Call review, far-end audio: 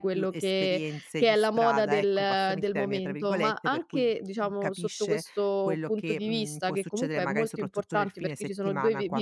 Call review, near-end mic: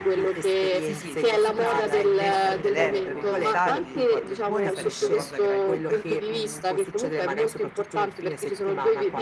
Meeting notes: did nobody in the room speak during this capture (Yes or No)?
No